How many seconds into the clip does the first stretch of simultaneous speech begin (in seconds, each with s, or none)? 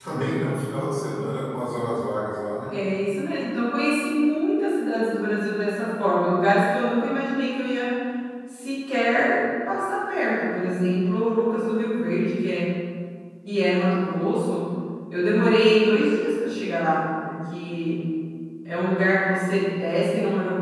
none